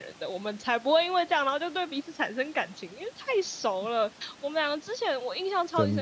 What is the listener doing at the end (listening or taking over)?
listening